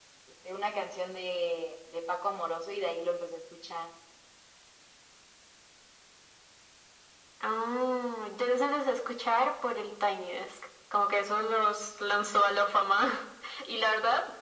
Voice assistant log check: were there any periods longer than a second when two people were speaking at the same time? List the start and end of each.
none

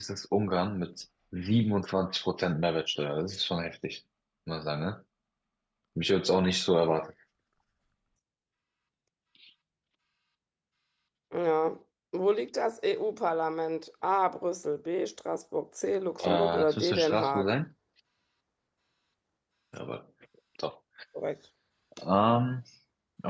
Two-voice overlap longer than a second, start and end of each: 16.2-17.5

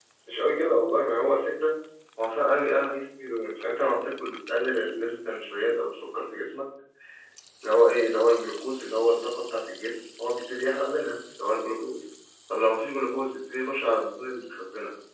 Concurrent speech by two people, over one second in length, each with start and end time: none

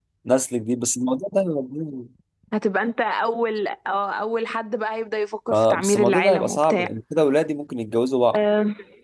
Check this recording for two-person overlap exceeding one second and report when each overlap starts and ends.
5.5-6.9

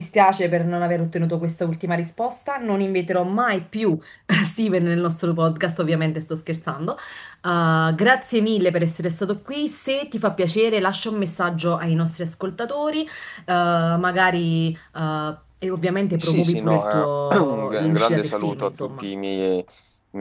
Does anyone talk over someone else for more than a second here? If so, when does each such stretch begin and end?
16.1-19.0

